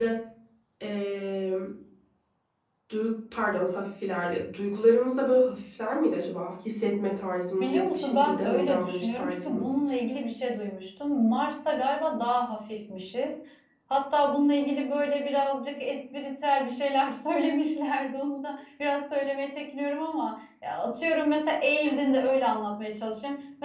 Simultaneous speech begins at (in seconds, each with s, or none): 7.6 s